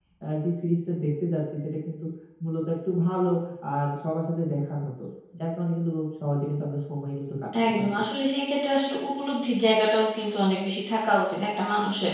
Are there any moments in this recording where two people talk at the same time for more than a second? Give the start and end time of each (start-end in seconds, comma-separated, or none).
none